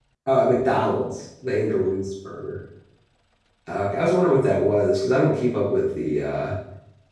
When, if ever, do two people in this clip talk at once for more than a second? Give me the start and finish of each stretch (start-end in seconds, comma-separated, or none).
none